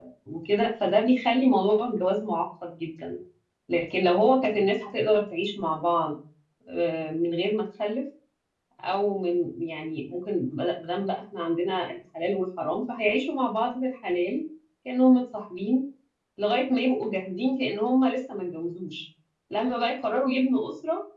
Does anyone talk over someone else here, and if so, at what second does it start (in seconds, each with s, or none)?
none